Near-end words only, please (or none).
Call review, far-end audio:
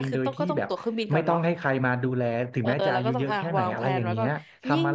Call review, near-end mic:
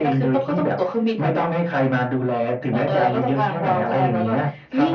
none